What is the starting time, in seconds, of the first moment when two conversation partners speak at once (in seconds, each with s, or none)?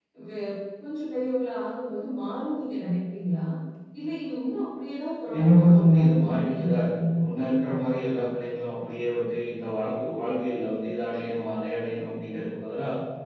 5.3 s